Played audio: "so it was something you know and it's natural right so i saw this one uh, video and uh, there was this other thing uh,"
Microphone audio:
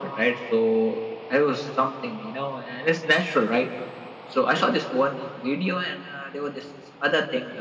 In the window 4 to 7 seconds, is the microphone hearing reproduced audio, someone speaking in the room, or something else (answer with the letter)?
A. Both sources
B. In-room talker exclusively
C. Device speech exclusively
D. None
C